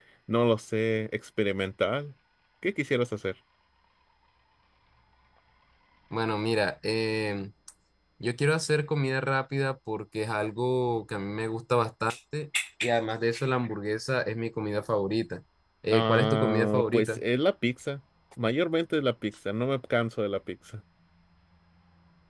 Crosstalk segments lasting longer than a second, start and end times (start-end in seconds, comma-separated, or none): 15.9-17.2